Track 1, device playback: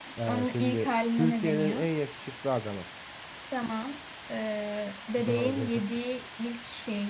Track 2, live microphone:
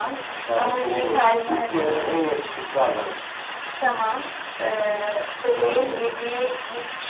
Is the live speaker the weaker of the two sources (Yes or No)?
Yes